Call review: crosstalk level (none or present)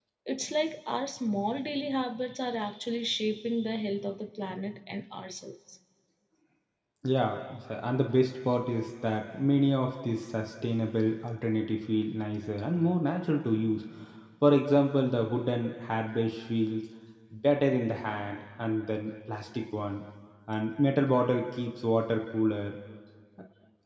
none